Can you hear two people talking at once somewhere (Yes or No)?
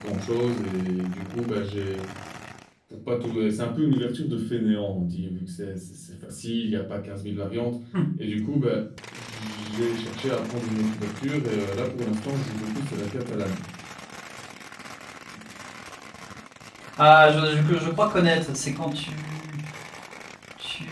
No